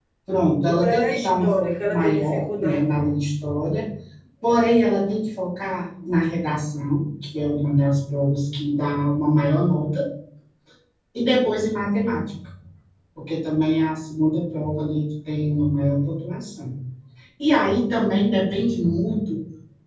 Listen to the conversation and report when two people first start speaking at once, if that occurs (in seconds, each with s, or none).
0.7 s